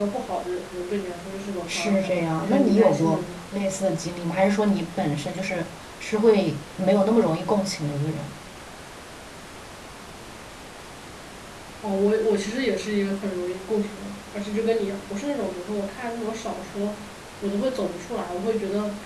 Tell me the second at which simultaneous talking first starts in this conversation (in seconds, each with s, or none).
1.7 s